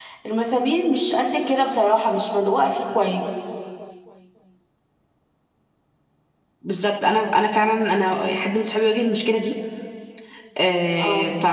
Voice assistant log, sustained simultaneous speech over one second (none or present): none